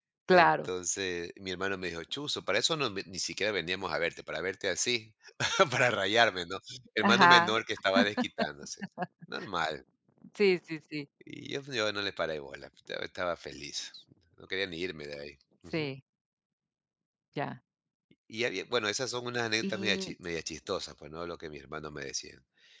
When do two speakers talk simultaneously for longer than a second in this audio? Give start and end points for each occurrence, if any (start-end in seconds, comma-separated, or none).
none